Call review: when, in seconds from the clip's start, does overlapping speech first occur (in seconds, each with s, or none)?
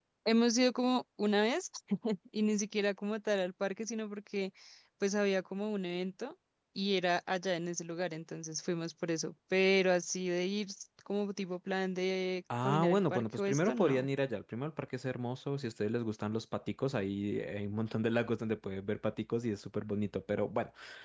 12.5 s